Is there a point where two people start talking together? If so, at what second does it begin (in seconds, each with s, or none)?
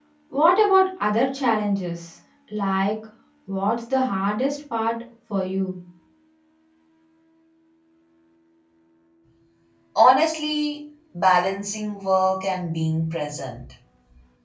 none